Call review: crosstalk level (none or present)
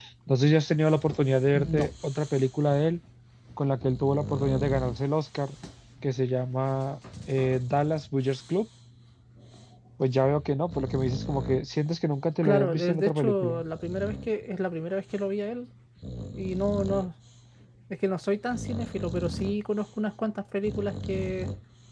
present